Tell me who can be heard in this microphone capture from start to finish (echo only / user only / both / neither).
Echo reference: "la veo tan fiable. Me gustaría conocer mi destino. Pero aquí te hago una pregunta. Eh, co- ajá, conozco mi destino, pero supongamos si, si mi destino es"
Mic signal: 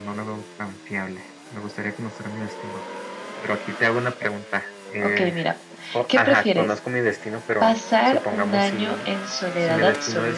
both